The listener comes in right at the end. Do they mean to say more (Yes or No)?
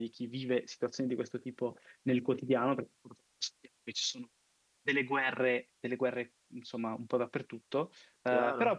No